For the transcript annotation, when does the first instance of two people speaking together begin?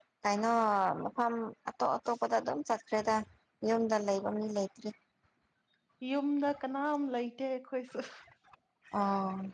none

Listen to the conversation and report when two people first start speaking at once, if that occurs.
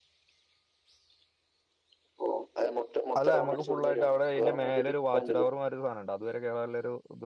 3 s

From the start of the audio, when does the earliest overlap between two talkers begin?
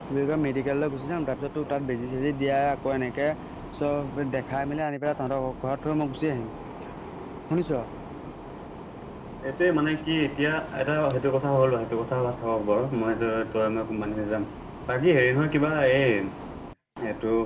none

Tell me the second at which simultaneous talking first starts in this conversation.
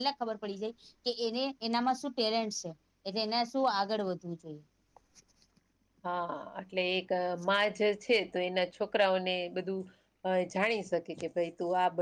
none

